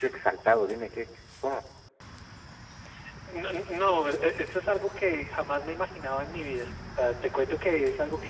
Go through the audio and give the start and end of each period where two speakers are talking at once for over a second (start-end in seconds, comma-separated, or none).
none